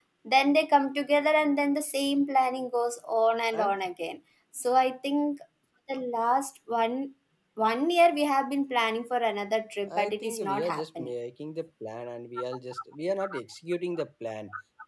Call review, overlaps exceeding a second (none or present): present